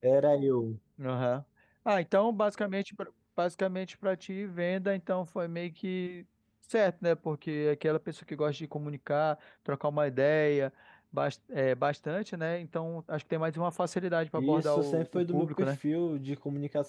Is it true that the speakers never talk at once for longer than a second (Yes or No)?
No